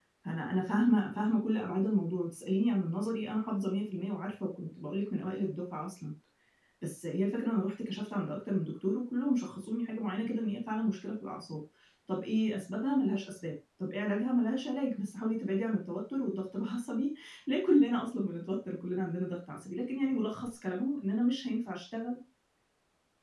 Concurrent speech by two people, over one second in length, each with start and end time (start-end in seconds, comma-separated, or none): none